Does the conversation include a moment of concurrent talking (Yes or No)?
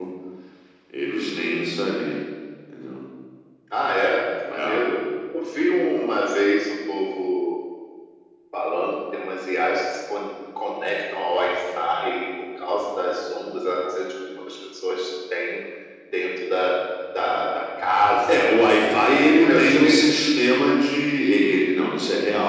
Yes